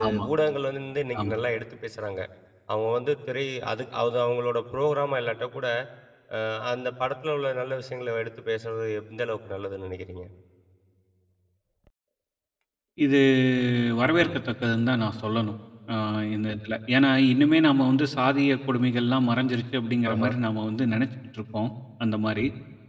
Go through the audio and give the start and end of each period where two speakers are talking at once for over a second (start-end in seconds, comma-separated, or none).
none